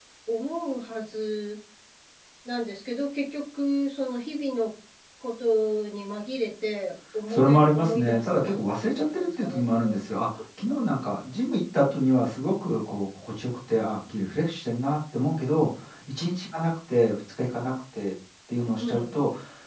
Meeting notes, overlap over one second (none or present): present